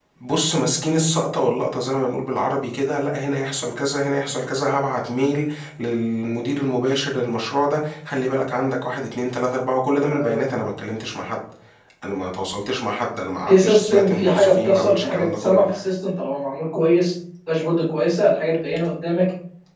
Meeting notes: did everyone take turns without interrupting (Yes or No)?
No